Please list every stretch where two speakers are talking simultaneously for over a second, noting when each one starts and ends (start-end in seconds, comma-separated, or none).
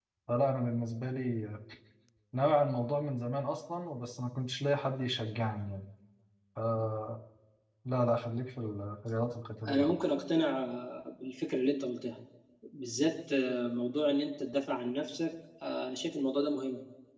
none